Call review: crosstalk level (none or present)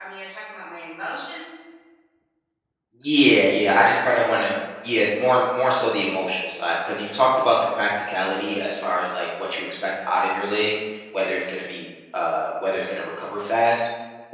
none